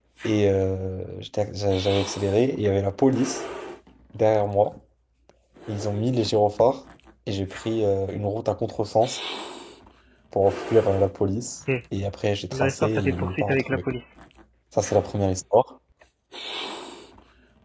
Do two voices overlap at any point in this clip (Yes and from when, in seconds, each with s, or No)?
Yes, from 12.5 s